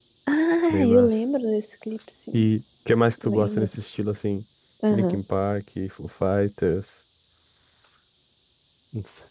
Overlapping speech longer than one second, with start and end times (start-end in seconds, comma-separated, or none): none